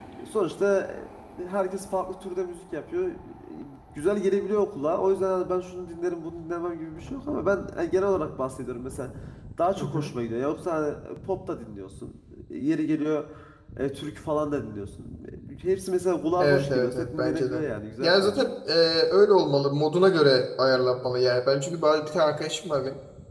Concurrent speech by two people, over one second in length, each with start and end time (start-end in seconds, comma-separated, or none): 16.4-17.6